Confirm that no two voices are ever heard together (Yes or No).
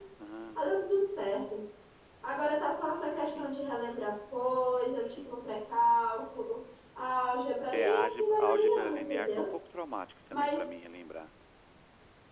No